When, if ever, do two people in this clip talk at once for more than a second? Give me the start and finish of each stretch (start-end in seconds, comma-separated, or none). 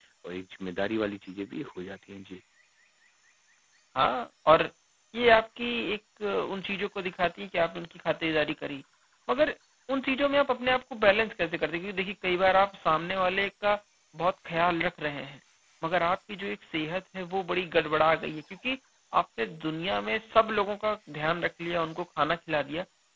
none